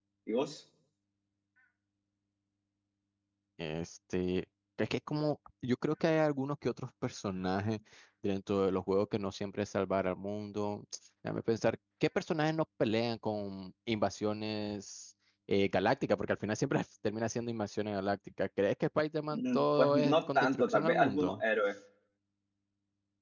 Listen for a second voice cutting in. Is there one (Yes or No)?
Yes